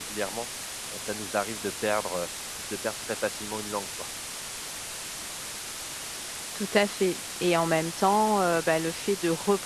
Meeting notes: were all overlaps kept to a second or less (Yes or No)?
Yes